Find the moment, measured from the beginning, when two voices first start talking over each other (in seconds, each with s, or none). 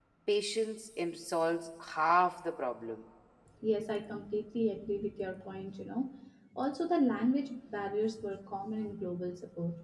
none